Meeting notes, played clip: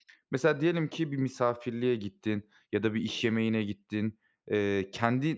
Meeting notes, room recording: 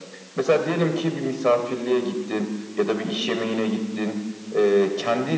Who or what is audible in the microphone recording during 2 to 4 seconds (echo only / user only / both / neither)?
echo only